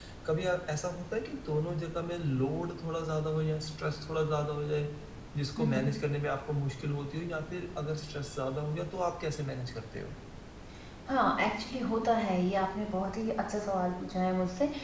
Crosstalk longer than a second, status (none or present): none